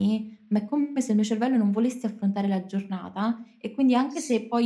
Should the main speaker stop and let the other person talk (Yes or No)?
No